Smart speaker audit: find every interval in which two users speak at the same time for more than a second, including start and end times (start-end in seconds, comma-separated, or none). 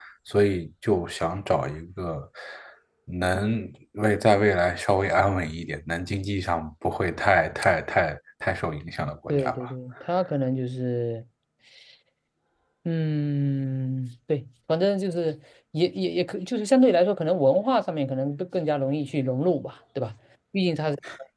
none